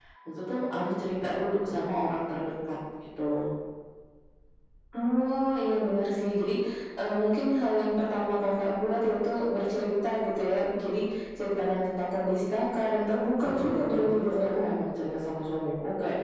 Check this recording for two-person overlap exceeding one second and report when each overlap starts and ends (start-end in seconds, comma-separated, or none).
13.4-14.7